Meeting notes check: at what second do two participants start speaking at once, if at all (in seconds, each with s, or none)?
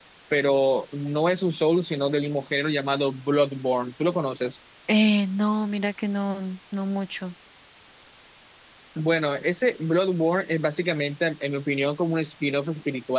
none